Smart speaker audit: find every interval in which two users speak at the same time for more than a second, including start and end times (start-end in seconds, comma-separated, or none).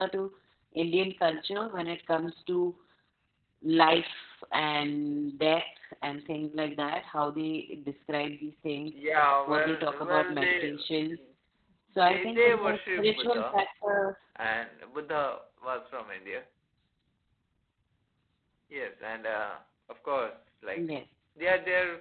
9.5-10.7, 12.1-13.6